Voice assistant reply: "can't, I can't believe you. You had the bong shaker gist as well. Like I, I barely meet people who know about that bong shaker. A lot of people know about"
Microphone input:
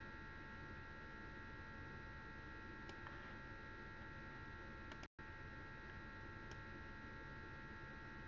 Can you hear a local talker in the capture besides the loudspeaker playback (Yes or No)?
No